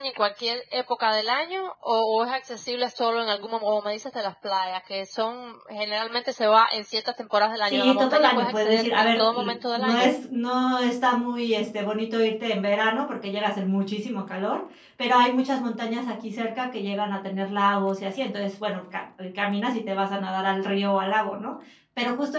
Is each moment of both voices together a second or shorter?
No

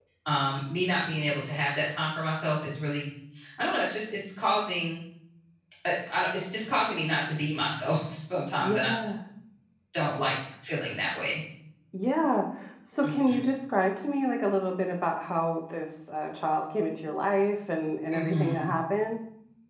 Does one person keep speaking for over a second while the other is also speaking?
No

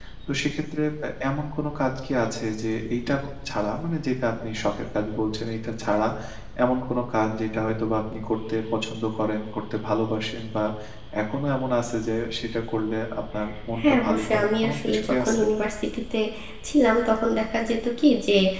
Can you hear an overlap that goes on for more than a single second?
Yes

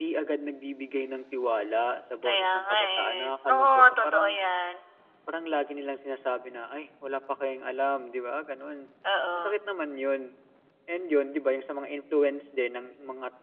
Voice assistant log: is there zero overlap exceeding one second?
No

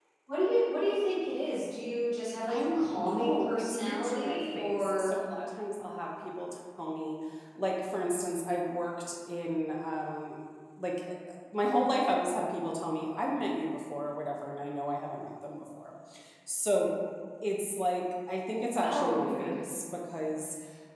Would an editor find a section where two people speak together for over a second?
Yes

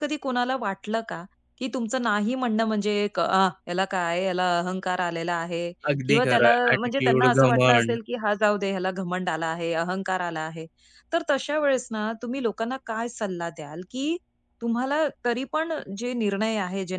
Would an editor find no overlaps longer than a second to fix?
No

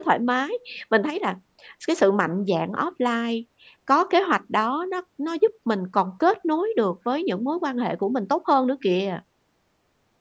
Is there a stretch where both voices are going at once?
No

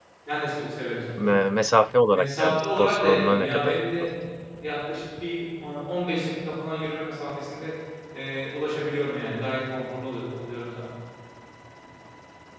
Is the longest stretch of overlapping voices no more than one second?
No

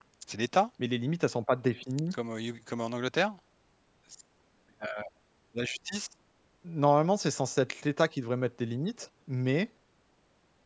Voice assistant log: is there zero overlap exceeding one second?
Yes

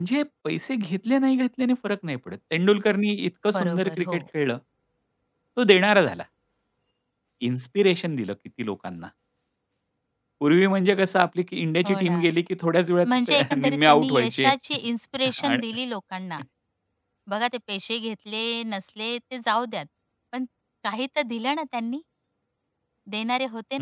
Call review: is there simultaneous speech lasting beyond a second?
Yes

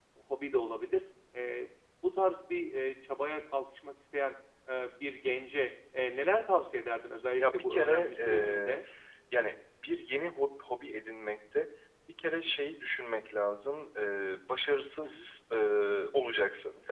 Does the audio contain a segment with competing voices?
Yes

